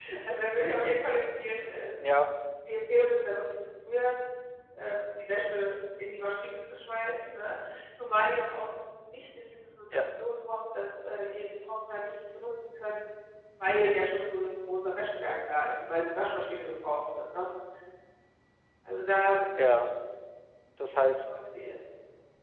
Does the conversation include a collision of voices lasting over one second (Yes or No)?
No